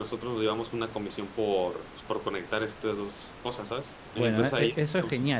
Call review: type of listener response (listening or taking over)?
taking over